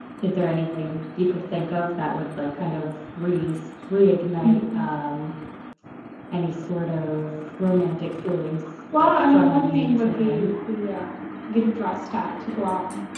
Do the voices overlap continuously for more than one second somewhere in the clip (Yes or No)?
Yes